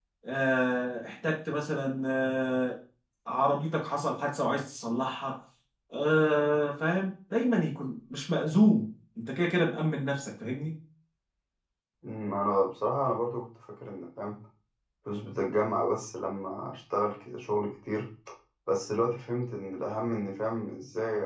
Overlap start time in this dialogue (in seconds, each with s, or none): none